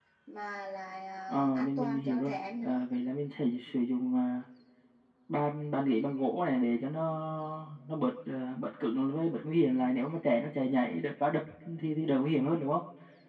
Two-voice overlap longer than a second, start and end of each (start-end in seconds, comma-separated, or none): 1.3-2.8